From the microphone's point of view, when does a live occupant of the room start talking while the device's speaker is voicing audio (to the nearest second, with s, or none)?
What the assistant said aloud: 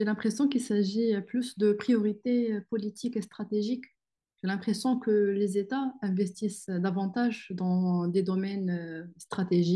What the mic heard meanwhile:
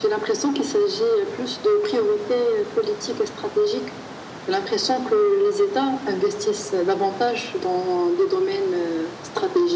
none